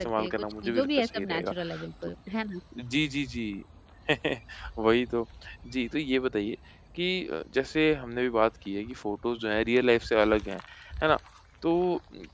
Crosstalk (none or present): present